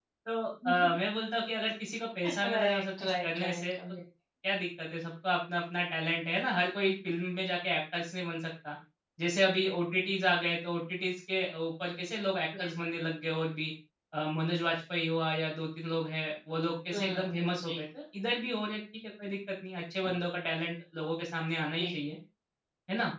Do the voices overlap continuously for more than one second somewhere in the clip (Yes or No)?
Yes